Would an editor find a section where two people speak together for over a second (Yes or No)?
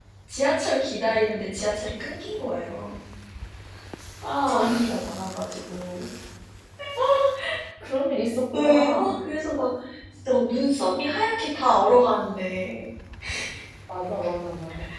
No